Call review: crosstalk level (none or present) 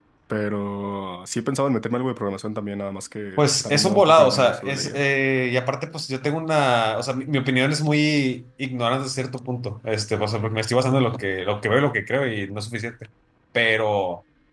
present